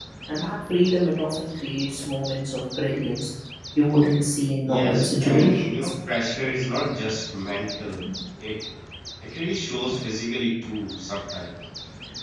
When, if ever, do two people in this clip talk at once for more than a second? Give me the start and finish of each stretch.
4.6-5.9

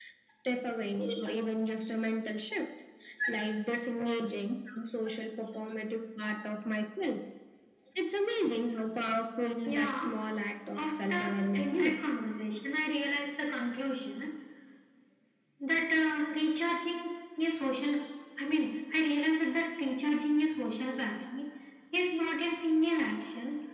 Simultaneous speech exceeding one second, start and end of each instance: 10.8-12.0

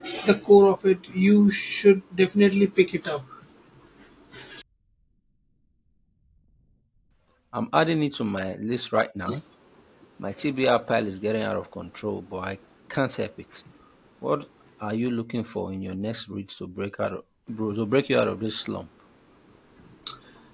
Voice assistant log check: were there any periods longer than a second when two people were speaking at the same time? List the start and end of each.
none

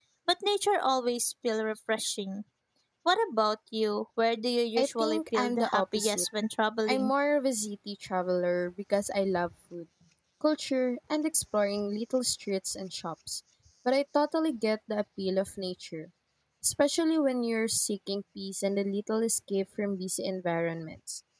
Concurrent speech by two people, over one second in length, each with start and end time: 4.8-6.2

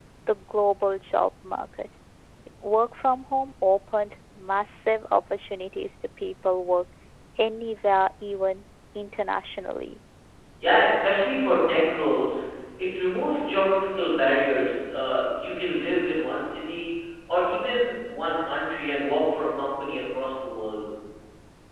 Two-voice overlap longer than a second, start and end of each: none

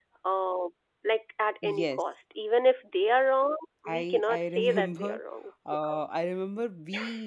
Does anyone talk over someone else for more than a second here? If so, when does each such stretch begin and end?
3.9-5.2

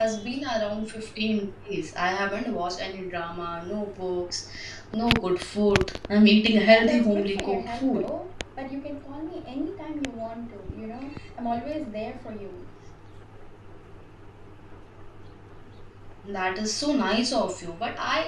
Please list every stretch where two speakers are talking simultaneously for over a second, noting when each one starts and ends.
6.7-8.1

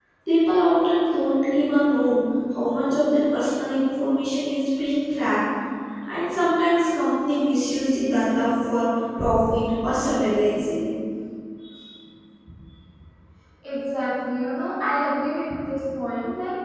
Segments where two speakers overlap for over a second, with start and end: none

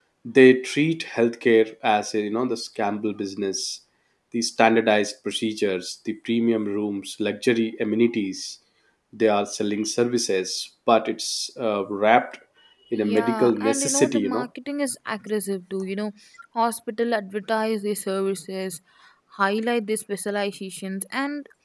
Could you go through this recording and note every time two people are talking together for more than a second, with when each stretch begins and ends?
12.9-14.4

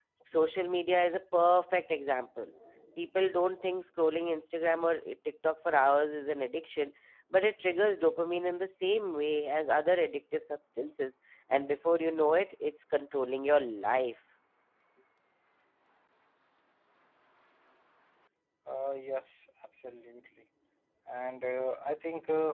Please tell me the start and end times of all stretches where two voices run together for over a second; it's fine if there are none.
none

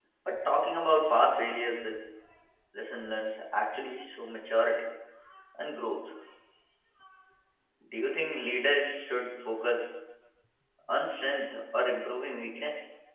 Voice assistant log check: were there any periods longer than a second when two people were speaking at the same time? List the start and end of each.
none

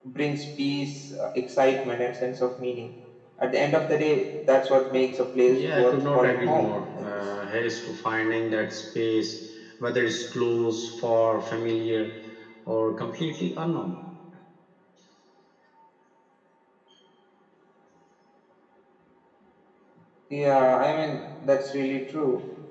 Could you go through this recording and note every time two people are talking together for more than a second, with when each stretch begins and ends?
5.5-7.2

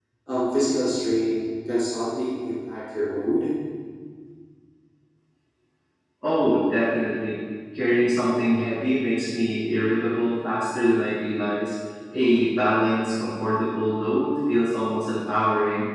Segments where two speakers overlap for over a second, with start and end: none

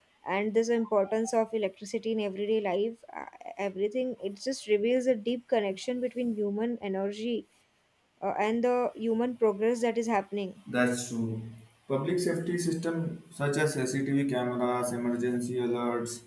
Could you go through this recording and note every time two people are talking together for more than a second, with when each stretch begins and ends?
none

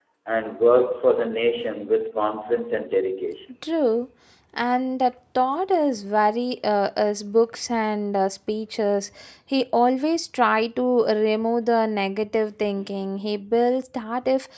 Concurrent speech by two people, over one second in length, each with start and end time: none

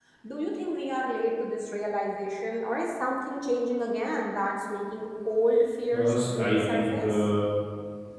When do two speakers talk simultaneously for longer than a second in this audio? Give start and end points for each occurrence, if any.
5.9-7.3

